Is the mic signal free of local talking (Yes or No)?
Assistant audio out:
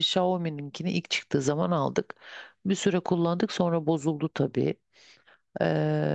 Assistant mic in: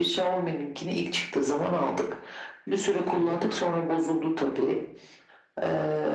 No